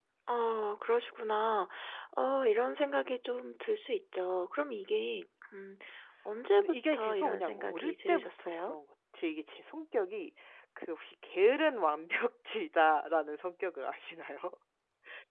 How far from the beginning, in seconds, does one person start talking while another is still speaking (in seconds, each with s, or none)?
6.6 s